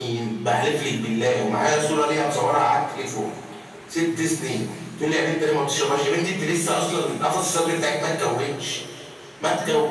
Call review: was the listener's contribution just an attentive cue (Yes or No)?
No